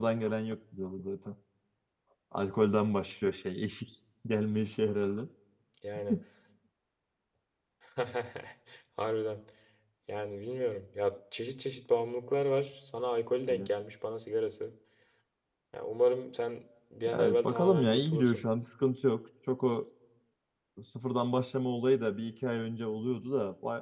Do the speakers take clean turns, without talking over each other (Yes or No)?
No